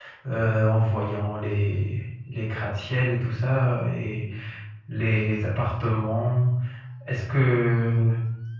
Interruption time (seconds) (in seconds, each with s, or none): none